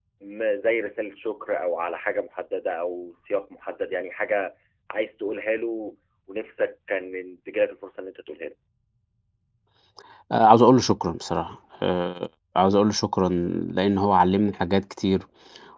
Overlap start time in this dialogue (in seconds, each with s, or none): none